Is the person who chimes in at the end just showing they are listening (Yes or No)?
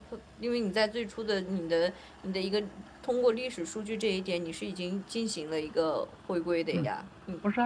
No